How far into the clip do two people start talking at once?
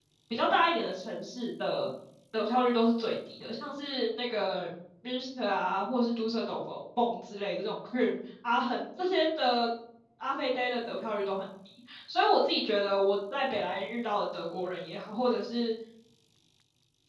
none

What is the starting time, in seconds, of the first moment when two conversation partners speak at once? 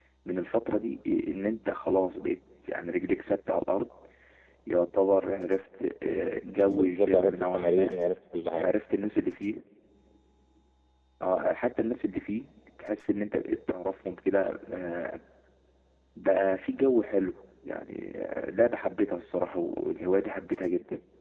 6.7 s

